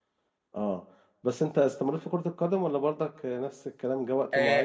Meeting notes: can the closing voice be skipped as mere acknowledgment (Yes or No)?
No